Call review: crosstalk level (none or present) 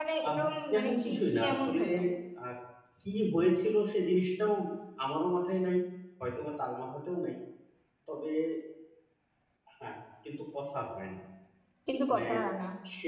present